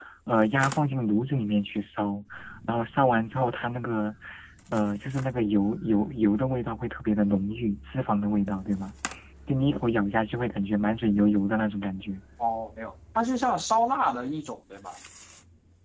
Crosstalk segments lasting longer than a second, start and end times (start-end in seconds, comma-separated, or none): none